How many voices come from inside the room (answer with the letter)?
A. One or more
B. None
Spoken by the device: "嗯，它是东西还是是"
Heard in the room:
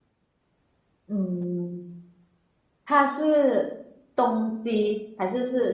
B